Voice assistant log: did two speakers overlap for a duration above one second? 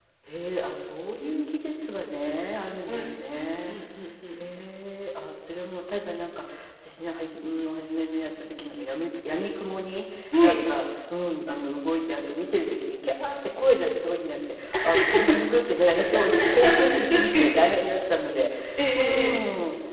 Yes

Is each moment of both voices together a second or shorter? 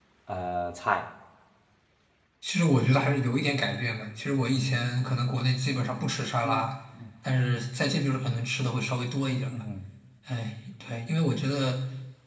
Yes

